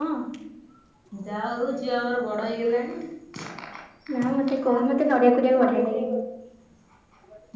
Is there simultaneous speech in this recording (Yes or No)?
Yes